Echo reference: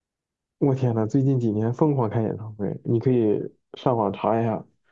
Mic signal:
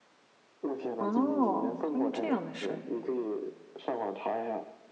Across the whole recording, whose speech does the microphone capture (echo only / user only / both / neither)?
both